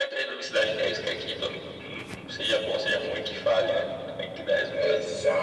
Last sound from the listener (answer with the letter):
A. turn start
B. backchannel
A